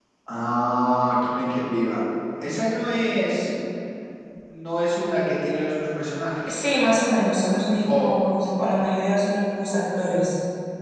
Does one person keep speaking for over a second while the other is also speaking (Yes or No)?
No